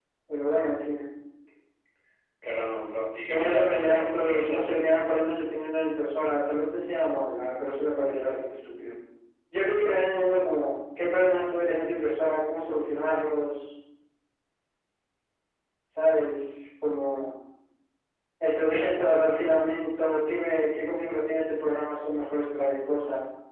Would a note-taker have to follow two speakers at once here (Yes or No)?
Yes